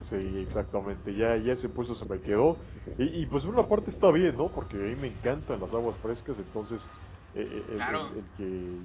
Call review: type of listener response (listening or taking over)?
listening